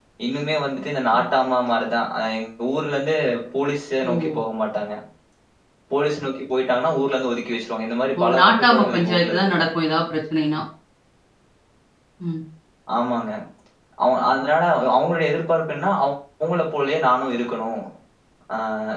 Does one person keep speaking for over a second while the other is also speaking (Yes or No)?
Yes